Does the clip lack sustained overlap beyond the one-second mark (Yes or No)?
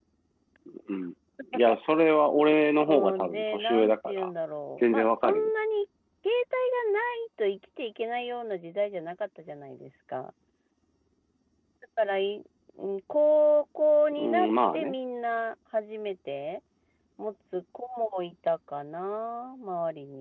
No